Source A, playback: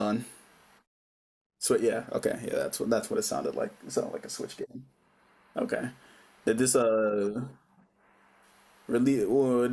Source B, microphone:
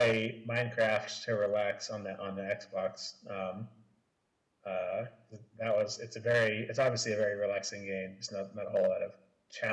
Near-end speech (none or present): present